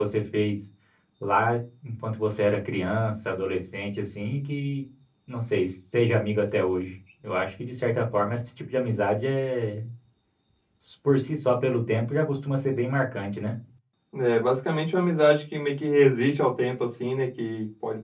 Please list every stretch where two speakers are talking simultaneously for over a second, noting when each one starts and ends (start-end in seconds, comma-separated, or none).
none